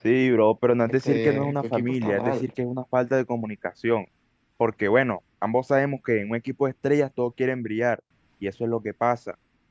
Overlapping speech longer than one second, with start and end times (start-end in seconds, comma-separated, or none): 0.9-2.5